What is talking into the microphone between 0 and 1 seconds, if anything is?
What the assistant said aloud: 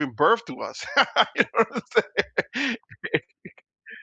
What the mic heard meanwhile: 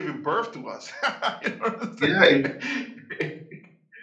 echo only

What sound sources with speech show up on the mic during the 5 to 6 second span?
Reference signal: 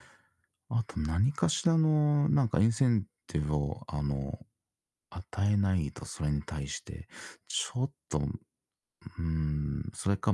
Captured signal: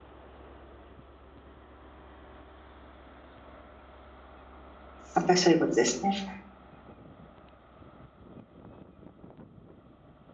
user only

